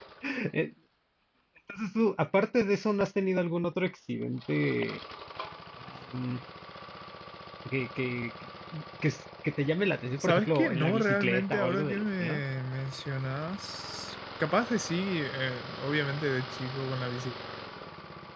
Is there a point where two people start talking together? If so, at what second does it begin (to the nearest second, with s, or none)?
10 s